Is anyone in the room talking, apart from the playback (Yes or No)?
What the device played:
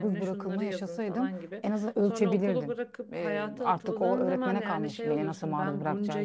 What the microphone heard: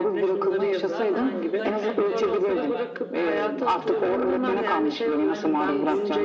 Yes